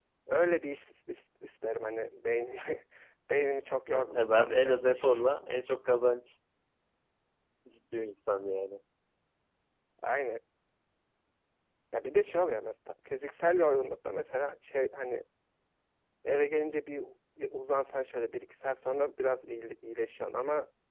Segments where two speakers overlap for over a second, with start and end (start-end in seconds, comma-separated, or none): 3.9-5.2